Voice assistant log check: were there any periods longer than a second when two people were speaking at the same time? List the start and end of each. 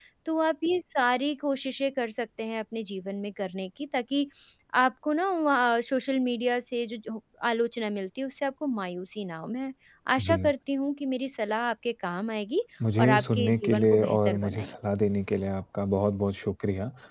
13.0-14.8

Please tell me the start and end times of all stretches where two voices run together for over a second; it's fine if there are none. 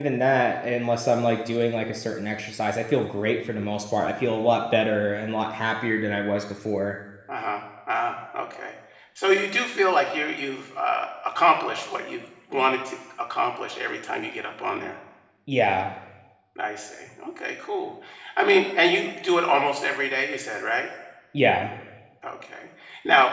none

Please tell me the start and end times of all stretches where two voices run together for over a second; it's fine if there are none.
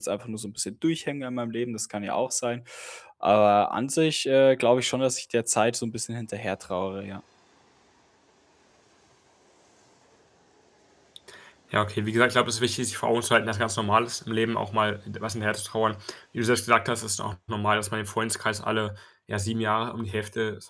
none

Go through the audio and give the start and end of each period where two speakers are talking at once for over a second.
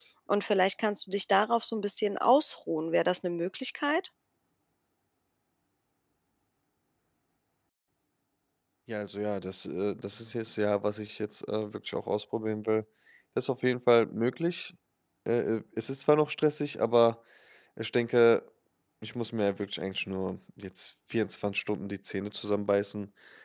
none

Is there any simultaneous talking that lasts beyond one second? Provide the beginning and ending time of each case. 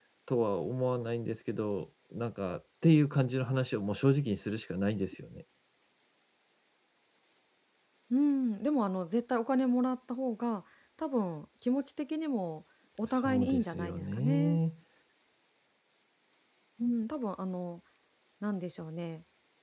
13.1-14.6

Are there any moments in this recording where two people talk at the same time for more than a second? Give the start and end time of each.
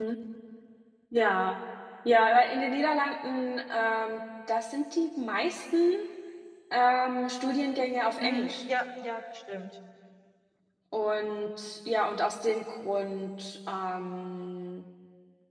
none

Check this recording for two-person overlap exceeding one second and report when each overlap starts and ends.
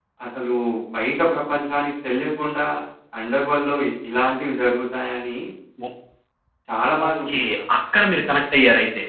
none

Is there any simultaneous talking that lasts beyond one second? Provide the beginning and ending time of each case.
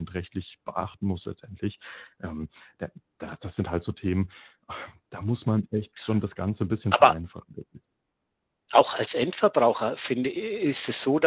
none

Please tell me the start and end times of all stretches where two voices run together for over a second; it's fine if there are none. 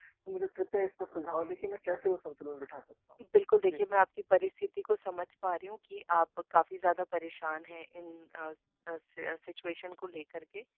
none

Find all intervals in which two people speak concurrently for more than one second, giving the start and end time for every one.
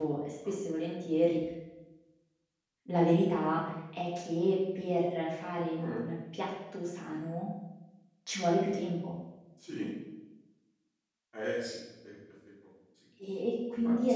none

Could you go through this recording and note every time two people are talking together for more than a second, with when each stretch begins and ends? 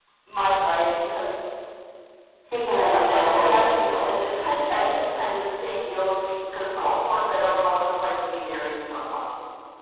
2.8-4.1

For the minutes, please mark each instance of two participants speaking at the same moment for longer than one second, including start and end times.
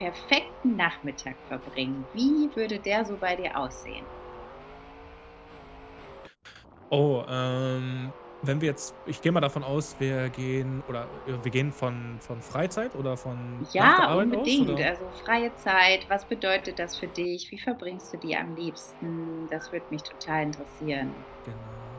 13.6-14.9

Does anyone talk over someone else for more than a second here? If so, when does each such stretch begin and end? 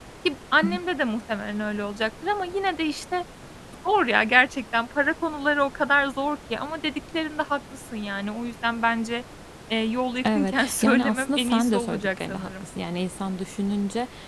10.4-12.6

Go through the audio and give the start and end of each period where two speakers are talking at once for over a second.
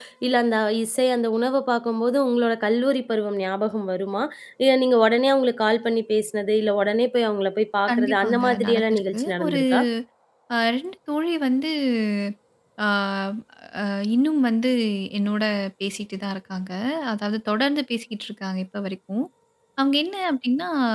7.9-9.6

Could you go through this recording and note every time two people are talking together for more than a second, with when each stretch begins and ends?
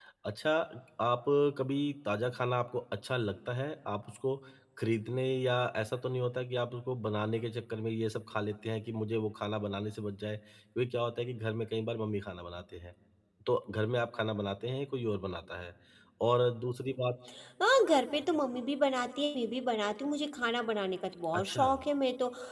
none

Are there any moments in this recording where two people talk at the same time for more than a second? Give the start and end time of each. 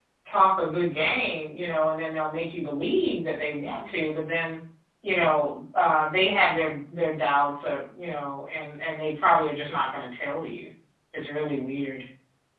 none

